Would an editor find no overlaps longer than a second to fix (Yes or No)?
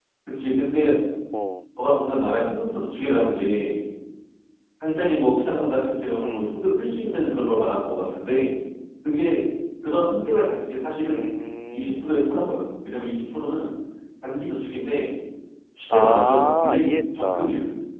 No